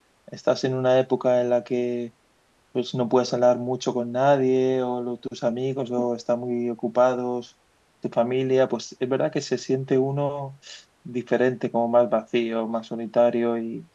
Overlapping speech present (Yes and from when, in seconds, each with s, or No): No